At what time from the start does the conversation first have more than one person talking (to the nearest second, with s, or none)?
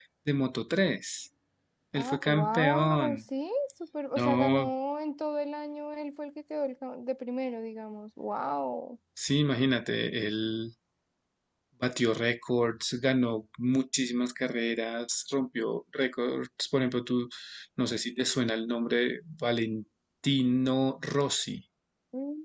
2 s